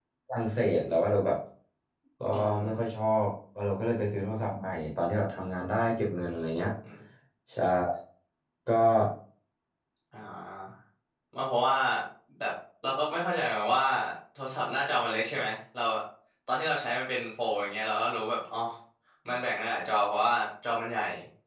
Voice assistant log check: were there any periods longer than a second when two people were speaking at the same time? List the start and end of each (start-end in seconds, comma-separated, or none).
none